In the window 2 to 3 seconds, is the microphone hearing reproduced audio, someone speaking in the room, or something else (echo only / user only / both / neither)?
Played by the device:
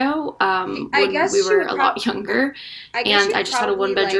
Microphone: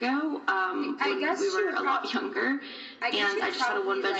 echo only